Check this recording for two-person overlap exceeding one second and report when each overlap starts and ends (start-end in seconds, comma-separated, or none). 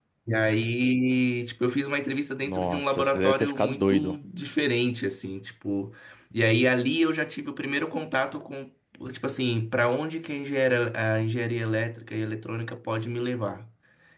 2.4-4.2